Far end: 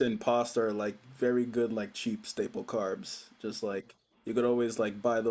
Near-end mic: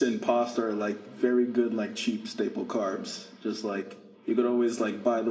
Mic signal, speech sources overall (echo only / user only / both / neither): echo only